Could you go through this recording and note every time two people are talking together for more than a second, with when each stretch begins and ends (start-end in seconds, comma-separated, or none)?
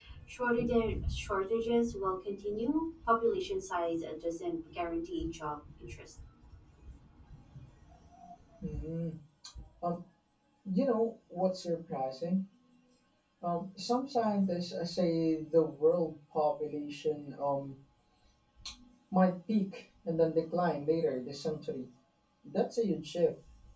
none